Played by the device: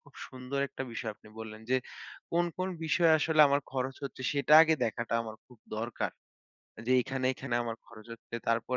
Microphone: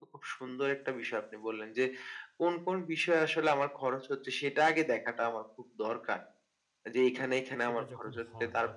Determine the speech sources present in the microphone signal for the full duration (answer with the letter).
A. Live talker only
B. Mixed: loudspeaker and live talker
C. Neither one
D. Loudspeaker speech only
B